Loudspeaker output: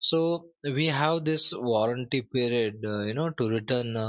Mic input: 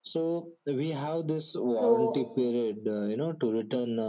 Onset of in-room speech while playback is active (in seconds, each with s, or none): 1.8 s